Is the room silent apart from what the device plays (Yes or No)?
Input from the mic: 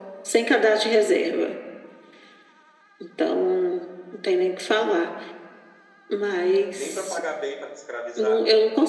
No